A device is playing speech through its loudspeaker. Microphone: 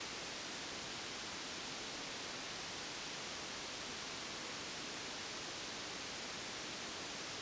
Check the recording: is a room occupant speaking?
No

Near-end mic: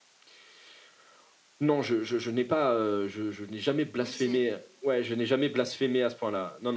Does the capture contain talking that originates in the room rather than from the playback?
Yes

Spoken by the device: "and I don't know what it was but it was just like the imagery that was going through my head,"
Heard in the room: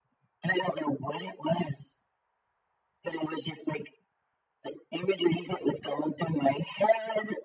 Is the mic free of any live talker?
Yes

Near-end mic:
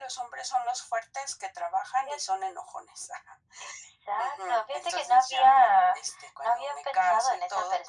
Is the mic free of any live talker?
Yes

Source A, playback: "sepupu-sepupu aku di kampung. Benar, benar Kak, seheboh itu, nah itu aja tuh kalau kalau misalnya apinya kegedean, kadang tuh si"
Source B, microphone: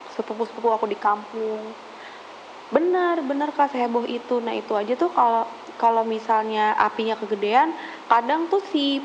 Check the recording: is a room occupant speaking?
No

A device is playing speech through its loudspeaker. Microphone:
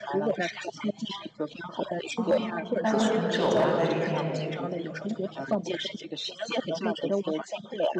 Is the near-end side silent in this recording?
No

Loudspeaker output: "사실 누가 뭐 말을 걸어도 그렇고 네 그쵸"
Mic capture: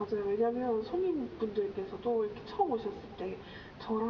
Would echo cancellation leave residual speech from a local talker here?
Yes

